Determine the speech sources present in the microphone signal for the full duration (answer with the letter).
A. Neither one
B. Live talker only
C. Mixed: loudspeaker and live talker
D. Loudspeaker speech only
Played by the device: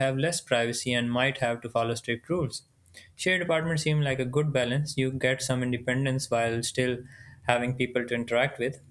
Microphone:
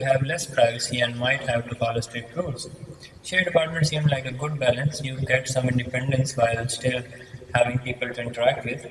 D